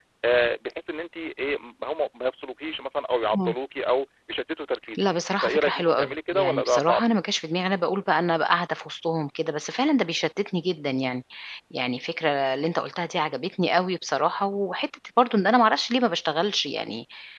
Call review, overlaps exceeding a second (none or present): present